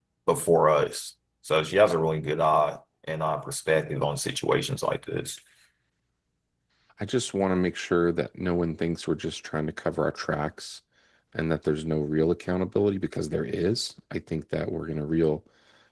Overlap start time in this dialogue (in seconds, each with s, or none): none